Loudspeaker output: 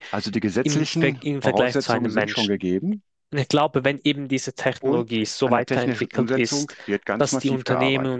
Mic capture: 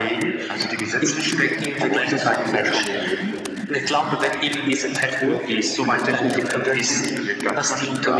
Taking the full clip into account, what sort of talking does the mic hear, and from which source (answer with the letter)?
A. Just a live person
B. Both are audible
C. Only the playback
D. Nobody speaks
C